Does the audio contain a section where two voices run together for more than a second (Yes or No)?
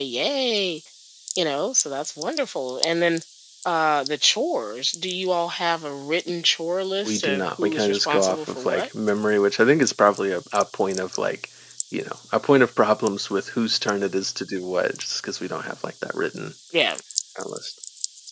Yes